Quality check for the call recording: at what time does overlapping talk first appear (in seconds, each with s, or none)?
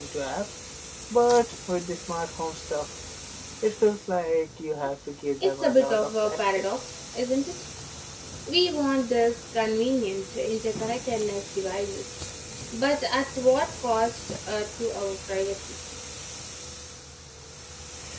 5.4 s